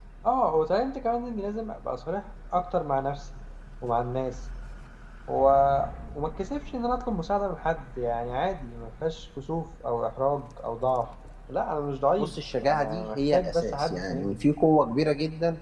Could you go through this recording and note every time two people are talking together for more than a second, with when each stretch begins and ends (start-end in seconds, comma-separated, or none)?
12.2-14.4